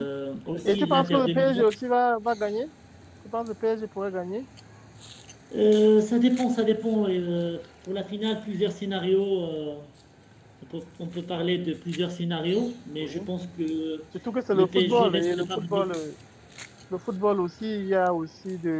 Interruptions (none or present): present